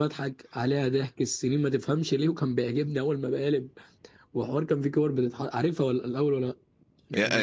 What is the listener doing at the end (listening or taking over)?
taking over